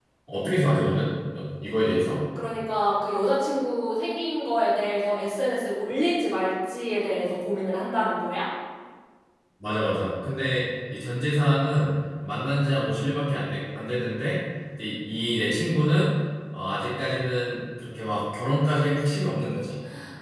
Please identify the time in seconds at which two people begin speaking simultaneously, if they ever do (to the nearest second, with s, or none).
none